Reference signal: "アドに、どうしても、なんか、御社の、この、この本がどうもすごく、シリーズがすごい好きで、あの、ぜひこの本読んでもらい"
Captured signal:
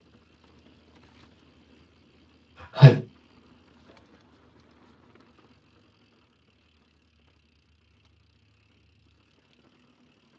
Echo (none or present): none